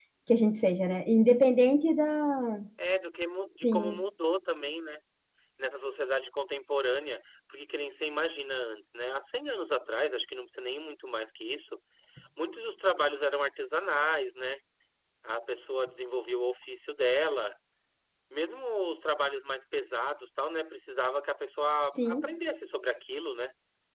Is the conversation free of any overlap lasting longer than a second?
Yes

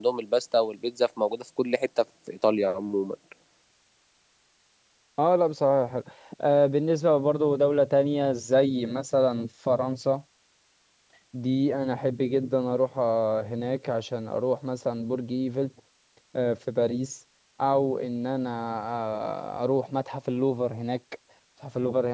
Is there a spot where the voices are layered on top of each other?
No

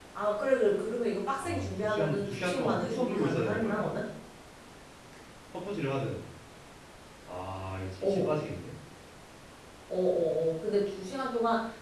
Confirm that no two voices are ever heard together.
No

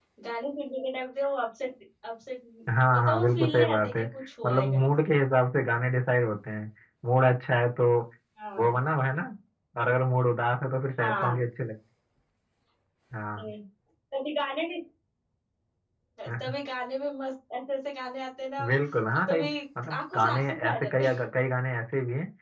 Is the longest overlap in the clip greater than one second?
Yes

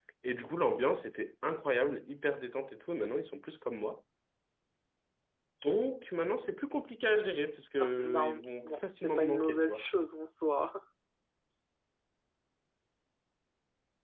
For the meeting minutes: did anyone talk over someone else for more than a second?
Yes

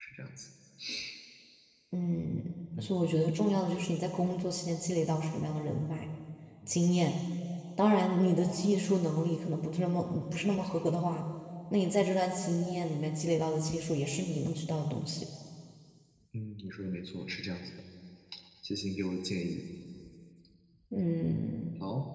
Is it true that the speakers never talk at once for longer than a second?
Yes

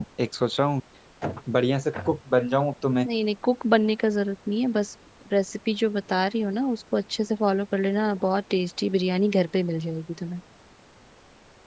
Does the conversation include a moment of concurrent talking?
No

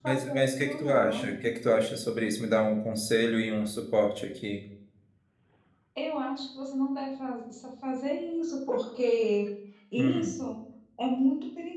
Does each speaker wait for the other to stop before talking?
No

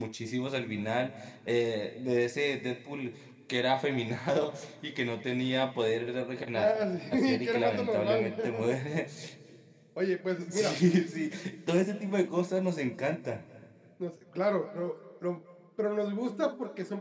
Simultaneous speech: Yes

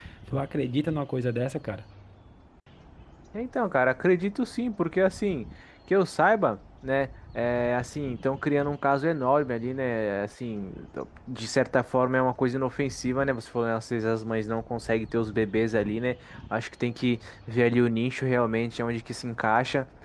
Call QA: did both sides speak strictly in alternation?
Yes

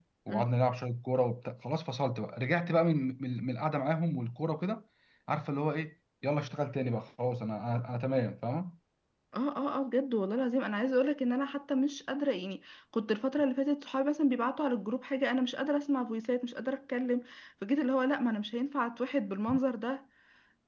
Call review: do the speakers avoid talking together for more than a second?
Yes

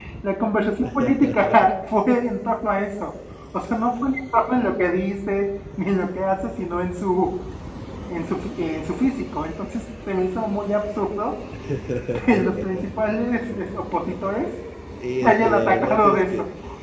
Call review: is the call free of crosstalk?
No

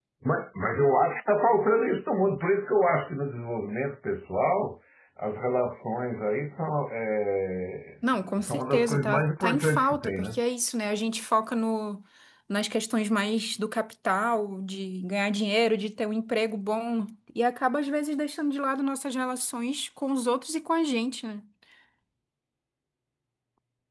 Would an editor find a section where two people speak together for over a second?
Yes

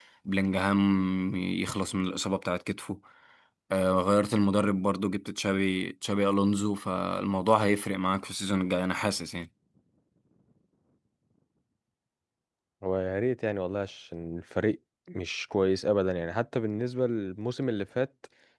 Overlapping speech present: No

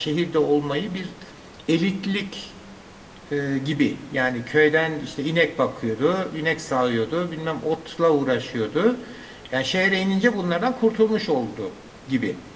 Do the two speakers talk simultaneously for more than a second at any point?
No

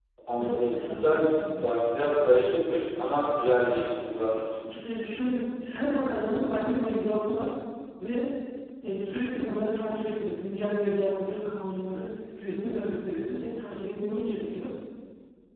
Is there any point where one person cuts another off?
Yes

